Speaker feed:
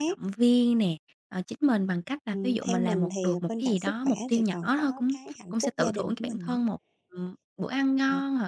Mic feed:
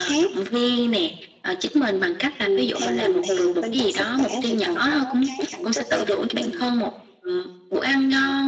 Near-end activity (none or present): none